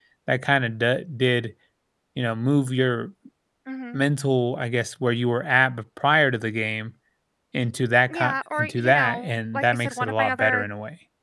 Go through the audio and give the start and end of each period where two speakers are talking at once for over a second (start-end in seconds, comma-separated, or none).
8.1-10.7